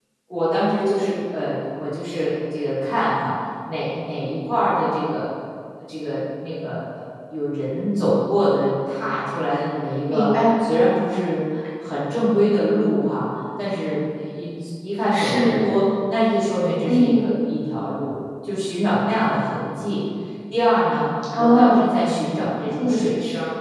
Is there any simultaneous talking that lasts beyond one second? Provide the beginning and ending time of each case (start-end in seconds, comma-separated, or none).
none